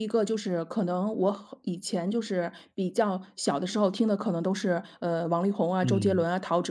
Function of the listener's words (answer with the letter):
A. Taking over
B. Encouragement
B